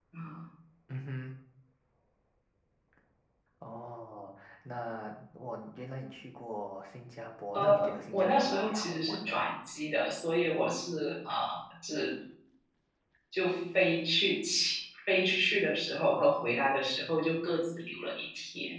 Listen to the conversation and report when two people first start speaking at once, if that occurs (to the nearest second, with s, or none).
8 s